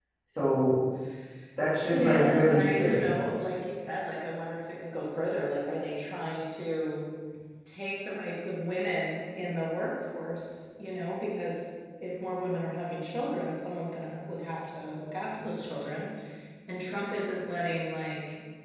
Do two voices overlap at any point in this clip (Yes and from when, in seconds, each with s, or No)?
Yes, from 1.9 s